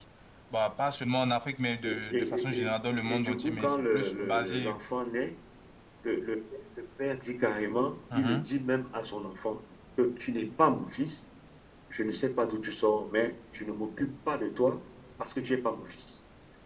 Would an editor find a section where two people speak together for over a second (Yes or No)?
Yes